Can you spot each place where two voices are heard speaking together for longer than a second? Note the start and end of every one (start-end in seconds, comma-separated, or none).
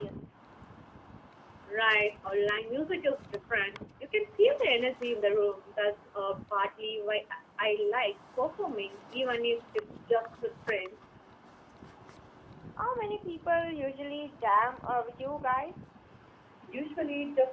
none